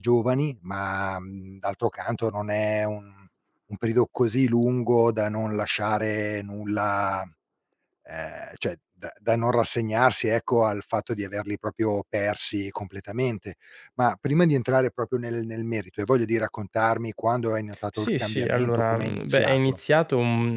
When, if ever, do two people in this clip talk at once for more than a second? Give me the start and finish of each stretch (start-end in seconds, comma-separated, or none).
18.0-19.8